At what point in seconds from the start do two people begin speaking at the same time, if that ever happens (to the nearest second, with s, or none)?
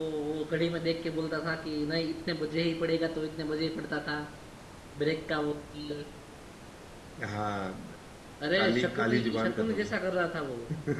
9 s